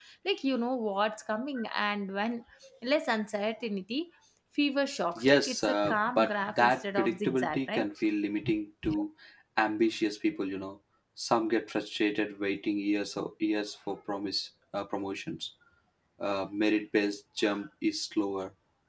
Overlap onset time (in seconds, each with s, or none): 5.2 s